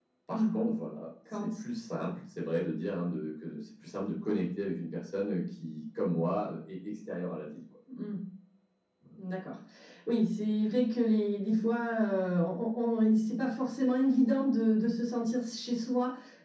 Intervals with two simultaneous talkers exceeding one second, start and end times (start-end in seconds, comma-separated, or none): none